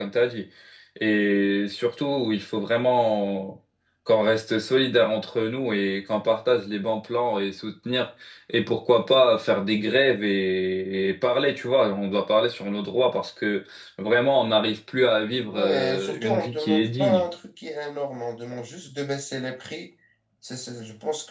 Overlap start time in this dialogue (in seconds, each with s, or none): 15.5 s